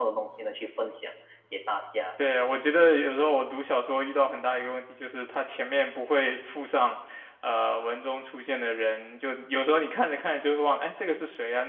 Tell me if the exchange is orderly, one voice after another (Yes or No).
Yes